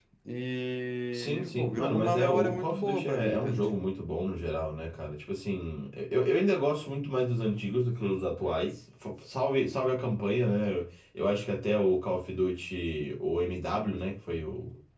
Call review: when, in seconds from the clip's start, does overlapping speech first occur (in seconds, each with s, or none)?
1.1 s